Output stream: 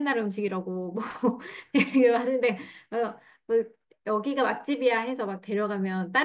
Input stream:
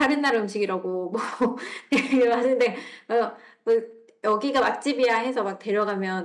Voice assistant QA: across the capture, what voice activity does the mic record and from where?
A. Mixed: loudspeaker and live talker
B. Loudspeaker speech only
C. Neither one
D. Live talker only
B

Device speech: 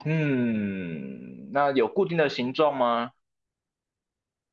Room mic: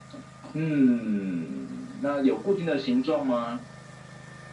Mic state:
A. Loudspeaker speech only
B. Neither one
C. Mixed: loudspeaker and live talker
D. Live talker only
A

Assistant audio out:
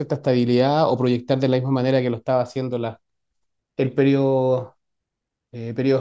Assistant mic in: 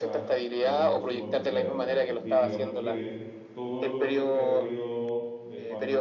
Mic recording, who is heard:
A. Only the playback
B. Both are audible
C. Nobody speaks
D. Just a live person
B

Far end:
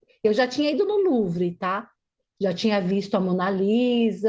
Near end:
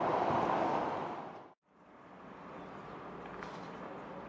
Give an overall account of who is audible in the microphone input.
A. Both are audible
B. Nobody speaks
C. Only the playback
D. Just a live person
B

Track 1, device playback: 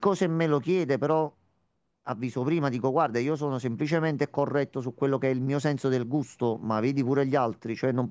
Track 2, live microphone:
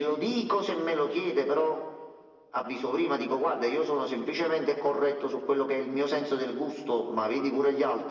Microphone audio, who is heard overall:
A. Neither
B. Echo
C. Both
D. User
B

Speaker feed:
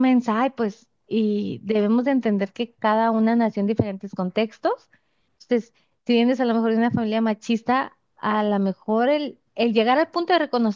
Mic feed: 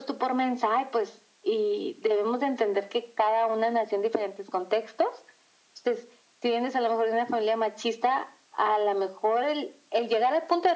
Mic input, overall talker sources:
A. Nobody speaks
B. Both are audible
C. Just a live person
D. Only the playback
D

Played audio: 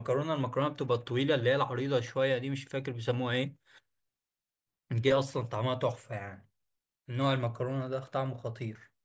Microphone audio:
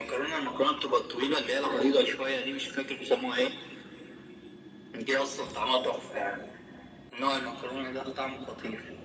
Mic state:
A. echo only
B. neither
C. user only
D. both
A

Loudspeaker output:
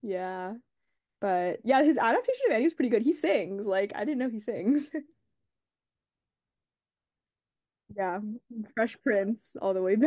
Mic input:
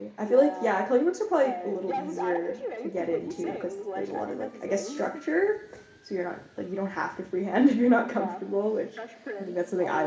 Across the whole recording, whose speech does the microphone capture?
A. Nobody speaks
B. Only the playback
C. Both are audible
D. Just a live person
C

